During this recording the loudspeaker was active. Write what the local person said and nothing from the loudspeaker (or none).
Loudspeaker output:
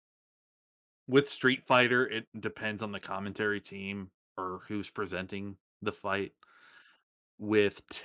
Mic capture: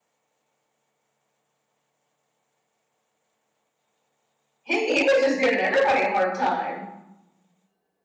He he was just giving everybody a hard time.